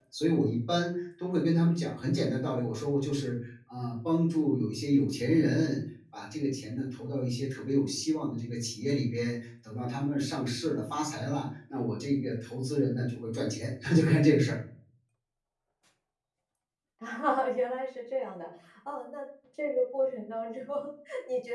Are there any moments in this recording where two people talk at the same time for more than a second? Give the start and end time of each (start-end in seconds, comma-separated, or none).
none